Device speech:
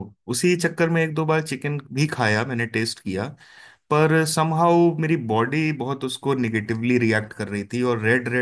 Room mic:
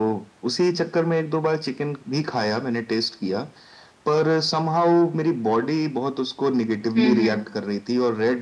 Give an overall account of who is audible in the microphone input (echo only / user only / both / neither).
both